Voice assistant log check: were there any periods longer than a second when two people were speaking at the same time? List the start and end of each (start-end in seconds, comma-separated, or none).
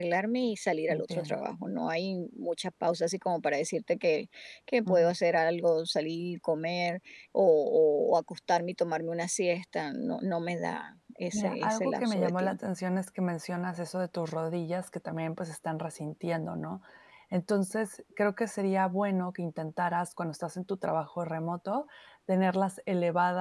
11.3-12.6